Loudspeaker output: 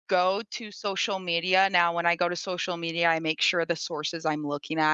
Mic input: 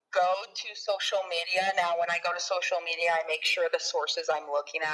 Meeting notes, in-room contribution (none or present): none